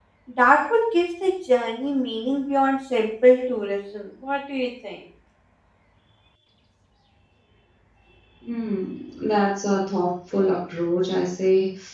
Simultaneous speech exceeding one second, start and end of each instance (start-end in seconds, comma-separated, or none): none